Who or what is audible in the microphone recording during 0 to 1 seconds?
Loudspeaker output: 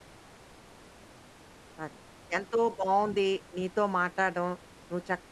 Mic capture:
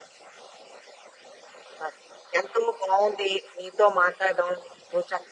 neither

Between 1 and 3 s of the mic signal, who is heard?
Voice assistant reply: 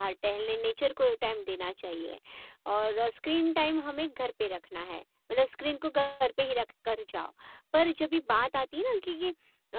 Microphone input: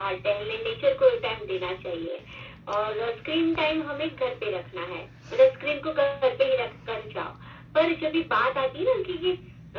echo only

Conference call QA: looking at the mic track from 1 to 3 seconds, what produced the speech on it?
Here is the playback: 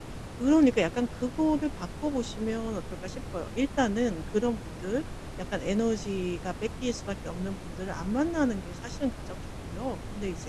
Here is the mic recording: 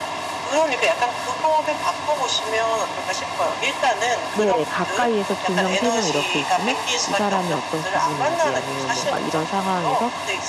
echo only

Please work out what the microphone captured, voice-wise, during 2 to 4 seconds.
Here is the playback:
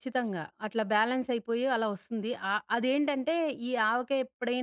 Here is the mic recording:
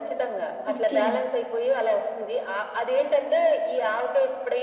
echo only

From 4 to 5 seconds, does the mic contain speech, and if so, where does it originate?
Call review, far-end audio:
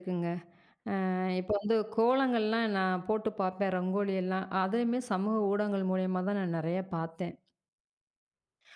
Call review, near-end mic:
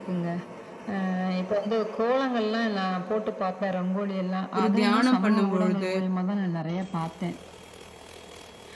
both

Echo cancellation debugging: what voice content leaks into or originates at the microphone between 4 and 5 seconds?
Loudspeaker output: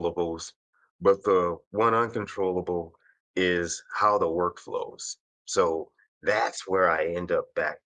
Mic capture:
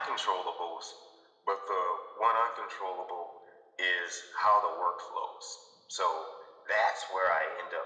echo only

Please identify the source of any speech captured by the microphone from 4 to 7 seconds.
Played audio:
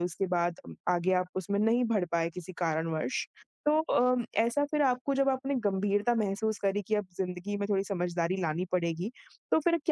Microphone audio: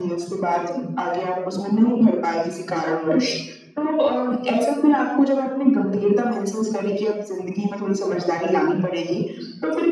echo only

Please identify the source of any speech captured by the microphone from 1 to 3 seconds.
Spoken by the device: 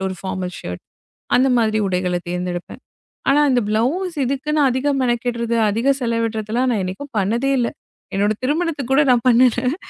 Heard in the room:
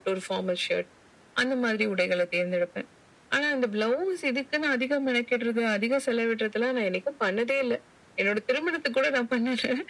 echo only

